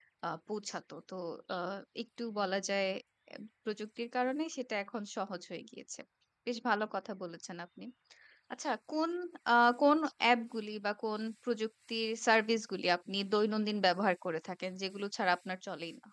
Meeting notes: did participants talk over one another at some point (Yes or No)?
No